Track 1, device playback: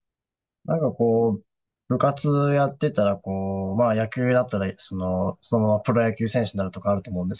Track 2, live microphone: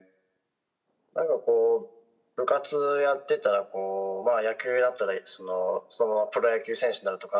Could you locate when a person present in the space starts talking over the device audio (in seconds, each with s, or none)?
none